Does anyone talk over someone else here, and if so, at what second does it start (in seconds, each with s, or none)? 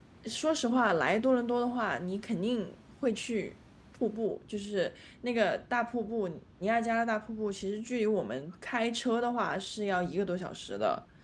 none